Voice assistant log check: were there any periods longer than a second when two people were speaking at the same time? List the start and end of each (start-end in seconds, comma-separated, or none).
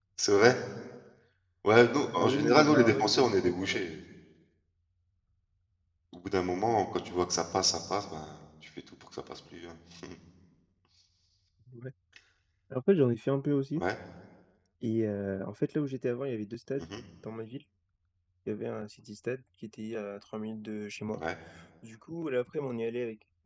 2.2-3.8